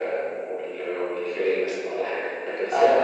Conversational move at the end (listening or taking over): listening